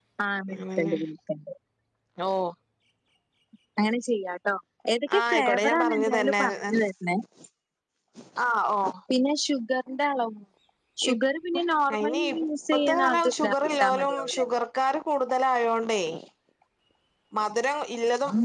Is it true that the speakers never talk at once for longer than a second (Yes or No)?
No